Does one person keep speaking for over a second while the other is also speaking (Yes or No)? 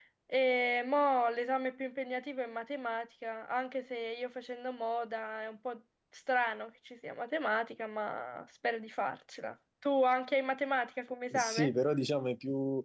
No